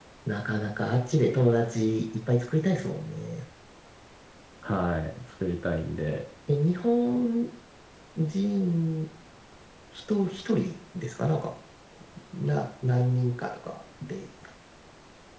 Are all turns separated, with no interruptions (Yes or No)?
Yes